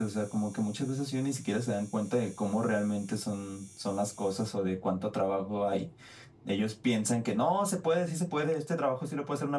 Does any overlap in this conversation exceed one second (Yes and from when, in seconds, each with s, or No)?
No